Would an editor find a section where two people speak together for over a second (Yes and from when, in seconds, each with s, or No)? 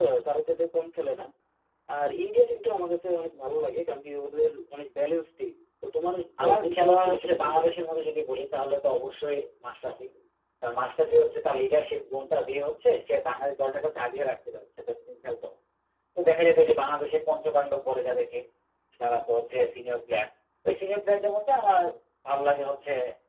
Yes, from 6.4 s